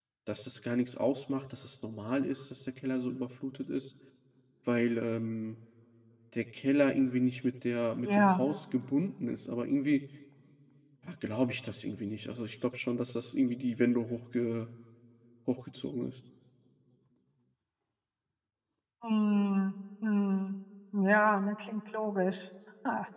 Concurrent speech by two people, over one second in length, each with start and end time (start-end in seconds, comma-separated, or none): none